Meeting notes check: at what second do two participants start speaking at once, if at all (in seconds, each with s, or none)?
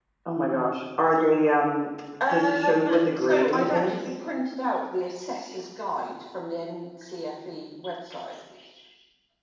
2.2 s